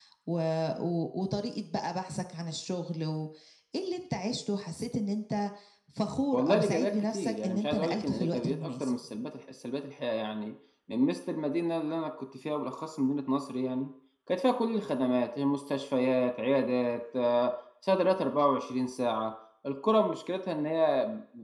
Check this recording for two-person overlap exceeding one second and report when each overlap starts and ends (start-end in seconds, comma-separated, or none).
6.3-8.9